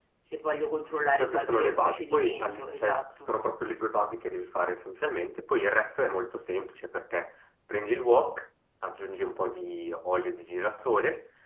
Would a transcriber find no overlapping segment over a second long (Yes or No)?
No